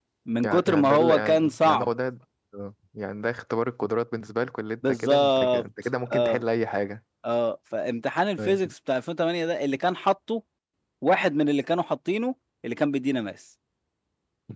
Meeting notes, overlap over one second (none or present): present